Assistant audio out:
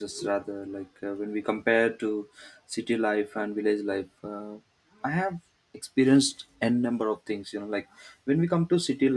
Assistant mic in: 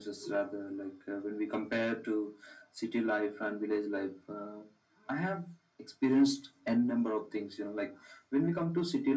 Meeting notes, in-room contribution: none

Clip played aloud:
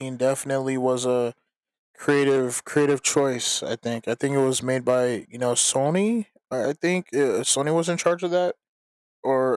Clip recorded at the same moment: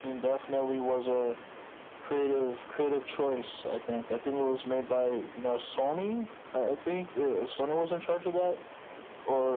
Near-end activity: none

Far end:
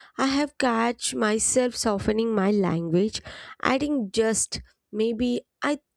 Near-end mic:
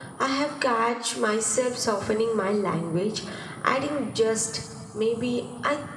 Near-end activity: none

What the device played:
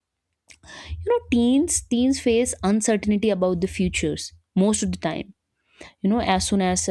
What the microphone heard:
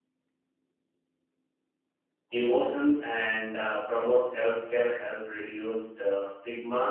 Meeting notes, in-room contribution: present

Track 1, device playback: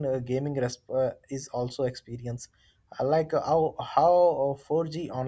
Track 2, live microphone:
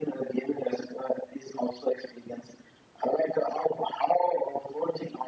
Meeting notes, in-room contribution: none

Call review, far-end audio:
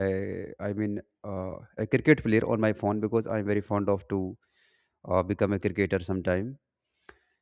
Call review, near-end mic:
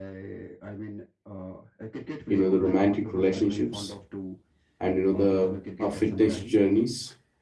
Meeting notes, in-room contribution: present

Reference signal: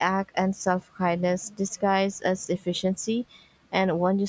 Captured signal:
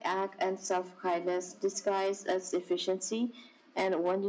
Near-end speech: none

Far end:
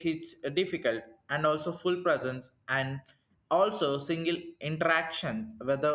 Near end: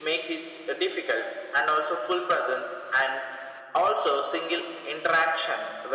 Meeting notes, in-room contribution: none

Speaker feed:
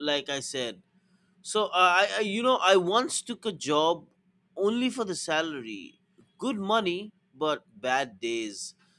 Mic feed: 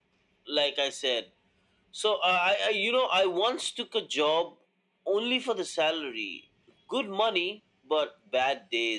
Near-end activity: none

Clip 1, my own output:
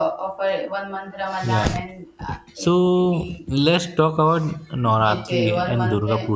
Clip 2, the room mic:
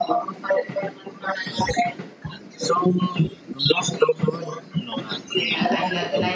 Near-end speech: present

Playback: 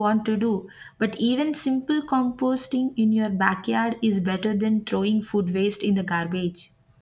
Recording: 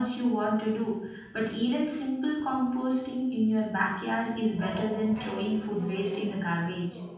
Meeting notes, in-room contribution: present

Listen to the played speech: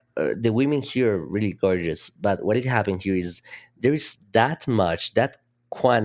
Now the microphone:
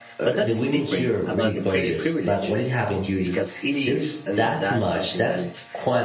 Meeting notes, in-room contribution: present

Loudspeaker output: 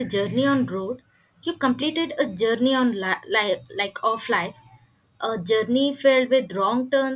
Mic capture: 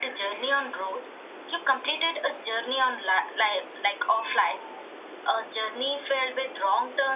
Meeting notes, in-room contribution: none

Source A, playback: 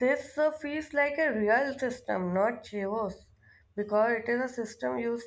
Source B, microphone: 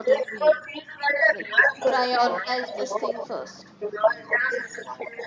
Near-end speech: present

